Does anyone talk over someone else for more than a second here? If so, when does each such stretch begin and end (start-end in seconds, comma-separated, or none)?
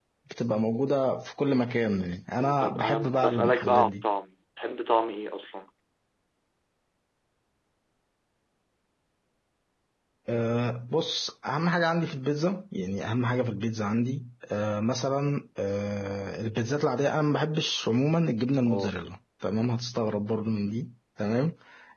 2.4-4.0